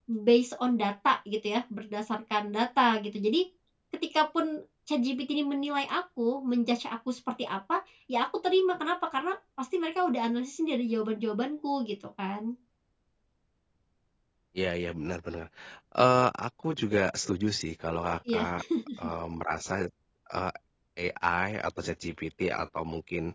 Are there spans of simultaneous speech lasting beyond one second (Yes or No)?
No